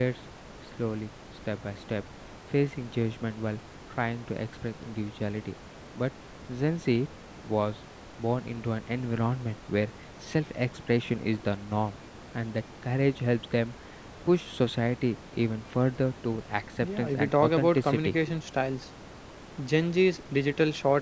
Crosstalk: present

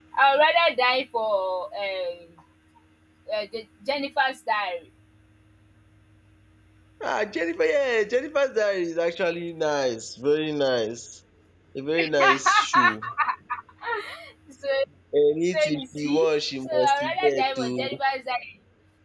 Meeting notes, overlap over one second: present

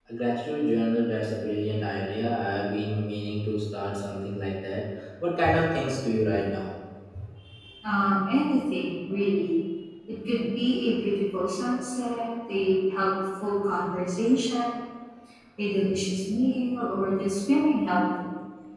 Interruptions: none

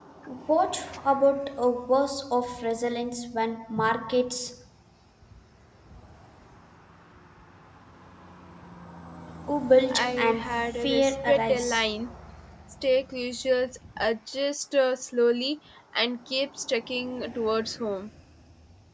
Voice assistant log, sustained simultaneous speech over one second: present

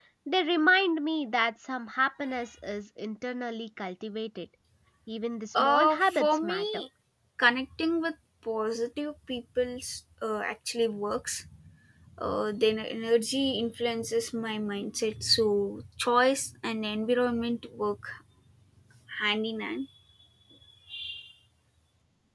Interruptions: present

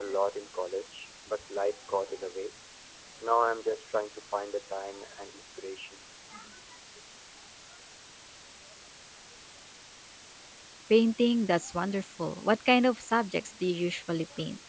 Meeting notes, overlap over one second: none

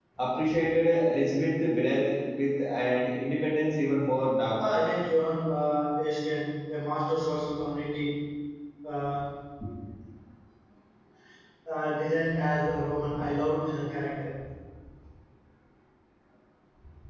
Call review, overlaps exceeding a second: none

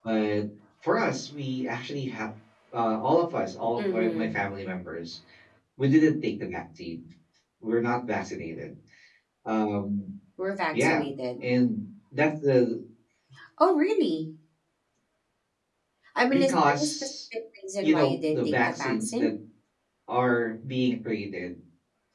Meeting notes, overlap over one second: present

